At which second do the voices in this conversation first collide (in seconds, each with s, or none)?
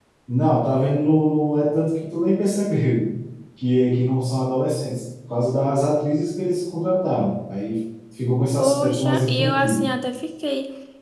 8.6 s